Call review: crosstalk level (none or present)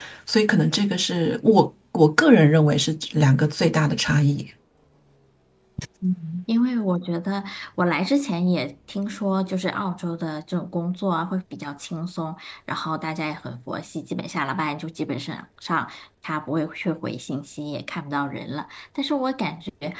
none